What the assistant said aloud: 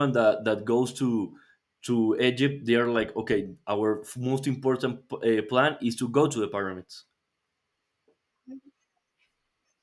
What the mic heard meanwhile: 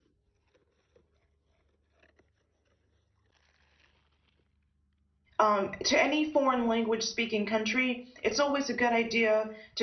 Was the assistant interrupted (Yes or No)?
Yes